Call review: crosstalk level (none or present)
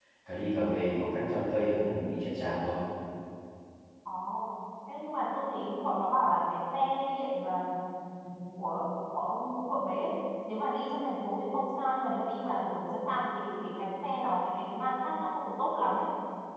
none